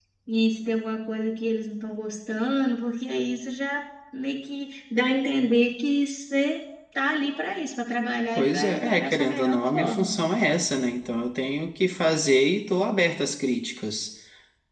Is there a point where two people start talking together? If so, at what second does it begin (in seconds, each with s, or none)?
8.3 s